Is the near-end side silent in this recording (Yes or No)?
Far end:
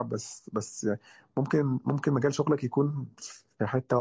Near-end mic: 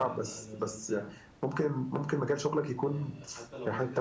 No